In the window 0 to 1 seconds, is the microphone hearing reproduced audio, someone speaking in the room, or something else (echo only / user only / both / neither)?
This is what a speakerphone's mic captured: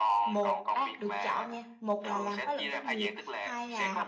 both